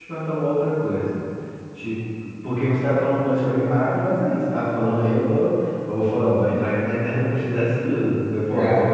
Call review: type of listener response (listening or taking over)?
listening